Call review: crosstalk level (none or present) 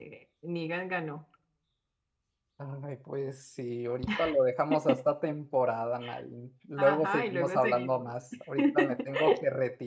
present